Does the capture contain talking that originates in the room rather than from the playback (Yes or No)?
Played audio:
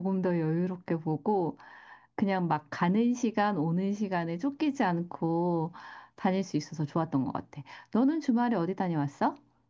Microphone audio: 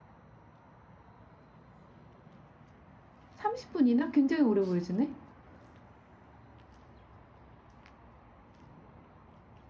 Yes